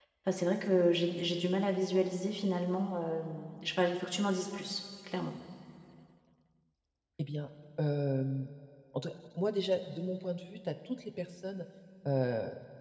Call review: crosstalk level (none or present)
none